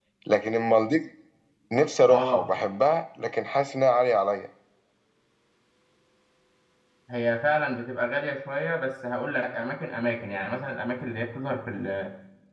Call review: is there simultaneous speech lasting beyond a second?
No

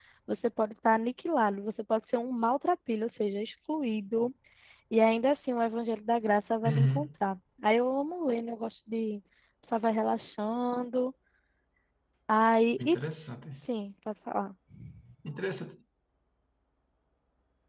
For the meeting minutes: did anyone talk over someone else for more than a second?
No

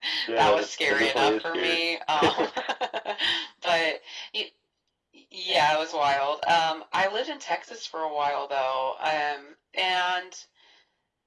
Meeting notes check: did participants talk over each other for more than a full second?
Yes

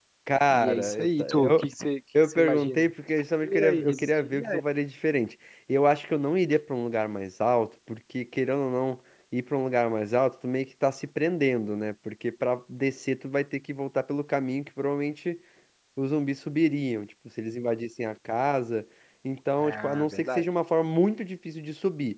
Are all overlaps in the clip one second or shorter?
No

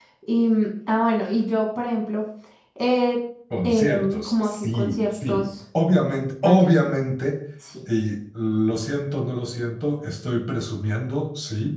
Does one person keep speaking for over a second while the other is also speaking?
Yes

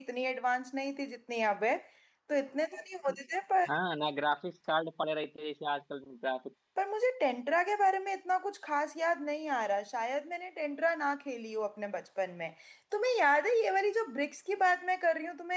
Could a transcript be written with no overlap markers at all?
Yes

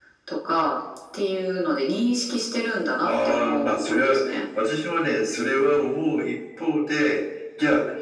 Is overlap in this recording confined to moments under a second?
No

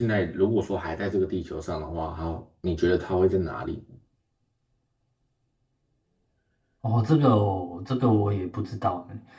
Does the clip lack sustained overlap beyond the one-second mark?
Yes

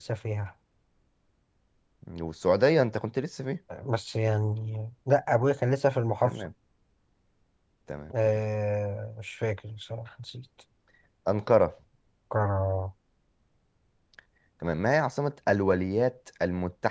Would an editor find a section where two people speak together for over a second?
No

